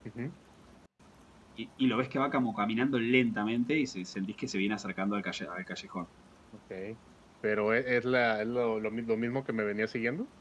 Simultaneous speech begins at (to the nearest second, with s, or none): none